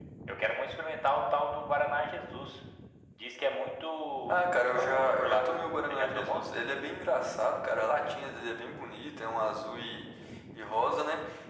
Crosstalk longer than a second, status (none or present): present